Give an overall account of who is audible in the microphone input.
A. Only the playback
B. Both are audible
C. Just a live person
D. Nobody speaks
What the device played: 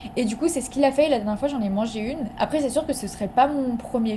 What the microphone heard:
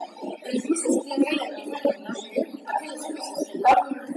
A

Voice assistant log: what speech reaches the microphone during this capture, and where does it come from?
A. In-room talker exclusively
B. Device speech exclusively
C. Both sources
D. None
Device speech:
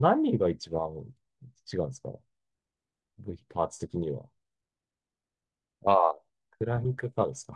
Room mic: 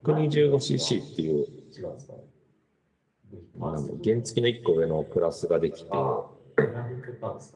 C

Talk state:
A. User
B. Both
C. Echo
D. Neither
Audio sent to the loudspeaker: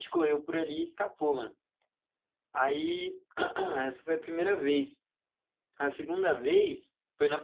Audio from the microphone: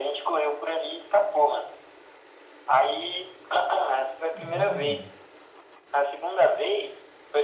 B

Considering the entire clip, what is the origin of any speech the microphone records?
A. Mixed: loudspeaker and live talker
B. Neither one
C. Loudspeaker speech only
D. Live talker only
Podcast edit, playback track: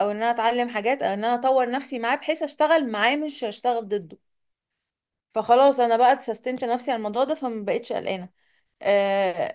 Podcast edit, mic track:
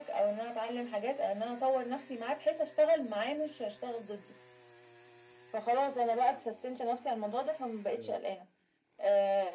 A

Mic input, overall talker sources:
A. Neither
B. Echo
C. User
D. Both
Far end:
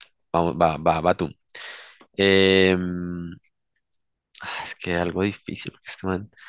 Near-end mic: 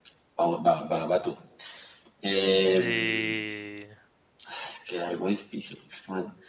D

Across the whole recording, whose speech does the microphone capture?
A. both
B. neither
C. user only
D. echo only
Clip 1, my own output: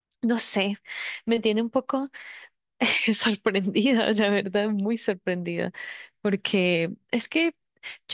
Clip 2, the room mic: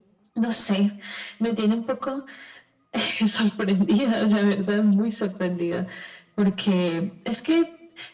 D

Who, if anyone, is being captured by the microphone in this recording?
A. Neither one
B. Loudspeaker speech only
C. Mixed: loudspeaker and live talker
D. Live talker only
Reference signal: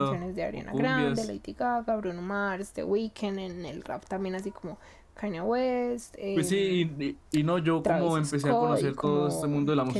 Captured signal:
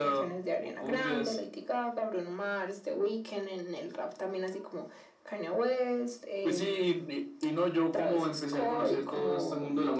B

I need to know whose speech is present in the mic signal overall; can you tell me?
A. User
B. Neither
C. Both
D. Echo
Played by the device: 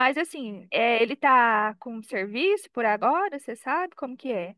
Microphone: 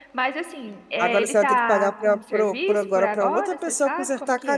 C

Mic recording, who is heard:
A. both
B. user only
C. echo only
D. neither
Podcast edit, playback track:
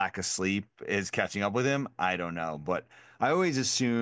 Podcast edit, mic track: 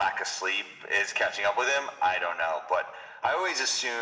C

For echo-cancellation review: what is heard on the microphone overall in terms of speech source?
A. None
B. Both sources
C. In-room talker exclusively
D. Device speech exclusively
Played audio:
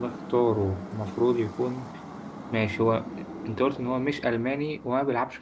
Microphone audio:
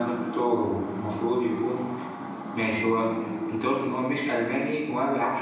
D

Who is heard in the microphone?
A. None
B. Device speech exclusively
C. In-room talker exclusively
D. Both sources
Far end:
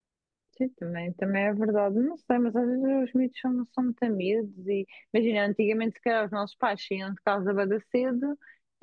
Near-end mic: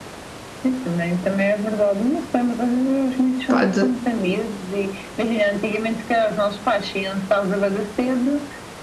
D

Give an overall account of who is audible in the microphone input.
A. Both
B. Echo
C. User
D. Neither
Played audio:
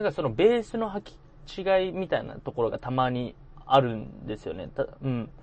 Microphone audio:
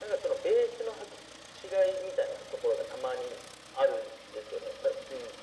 B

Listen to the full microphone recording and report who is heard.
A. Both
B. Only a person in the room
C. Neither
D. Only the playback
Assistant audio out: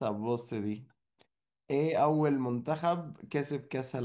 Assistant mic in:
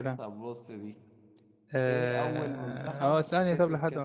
A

